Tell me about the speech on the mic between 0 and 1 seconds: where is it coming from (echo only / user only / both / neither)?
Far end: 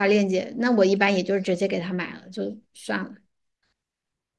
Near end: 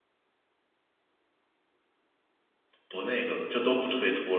neither